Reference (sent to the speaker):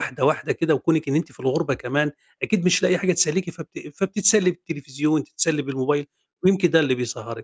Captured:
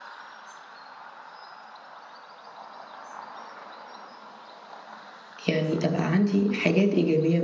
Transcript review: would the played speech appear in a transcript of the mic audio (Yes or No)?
No